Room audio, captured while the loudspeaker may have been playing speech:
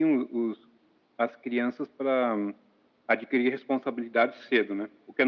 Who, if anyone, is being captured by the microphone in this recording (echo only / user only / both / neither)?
echo only